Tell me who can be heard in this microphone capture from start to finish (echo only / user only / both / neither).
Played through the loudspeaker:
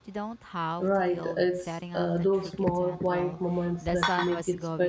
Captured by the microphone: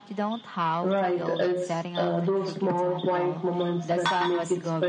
echo only